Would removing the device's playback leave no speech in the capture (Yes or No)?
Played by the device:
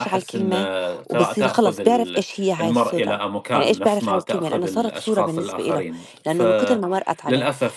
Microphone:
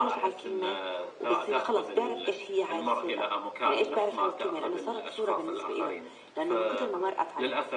Yes